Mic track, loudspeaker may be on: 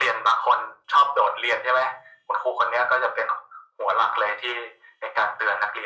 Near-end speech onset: none

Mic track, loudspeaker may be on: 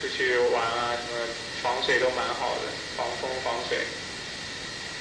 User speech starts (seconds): none

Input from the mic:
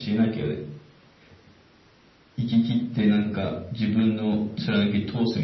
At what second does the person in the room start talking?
none

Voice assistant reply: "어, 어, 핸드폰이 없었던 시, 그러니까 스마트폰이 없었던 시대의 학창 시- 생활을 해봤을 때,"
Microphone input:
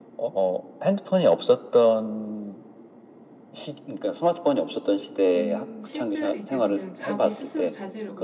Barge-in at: 5.3 s

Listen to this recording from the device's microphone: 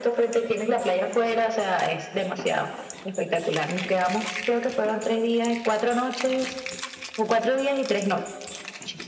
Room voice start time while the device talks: none

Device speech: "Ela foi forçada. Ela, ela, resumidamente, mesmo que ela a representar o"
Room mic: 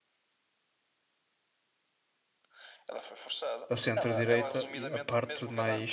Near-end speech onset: 3.7 s

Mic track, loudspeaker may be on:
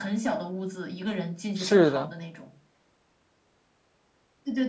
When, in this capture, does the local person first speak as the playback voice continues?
1.5 s

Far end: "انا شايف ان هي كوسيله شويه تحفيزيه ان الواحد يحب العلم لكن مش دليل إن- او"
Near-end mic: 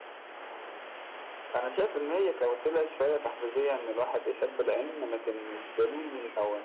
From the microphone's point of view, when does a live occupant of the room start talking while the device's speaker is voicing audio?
none

